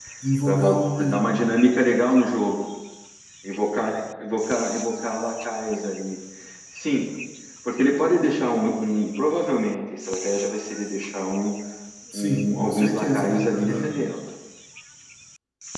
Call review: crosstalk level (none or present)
present